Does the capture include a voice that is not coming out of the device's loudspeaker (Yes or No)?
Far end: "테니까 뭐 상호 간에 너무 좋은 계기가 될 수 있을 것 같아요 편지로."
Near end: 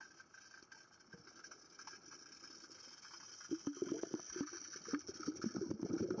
No